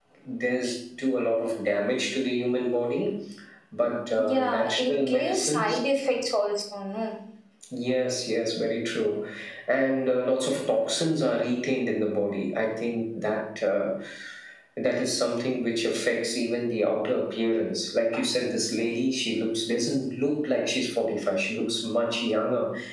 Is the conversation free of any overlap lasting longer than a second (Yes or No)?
No